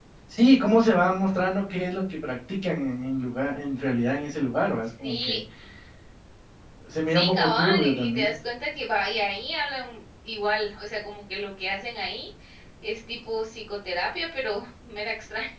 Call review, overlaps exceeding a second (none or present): present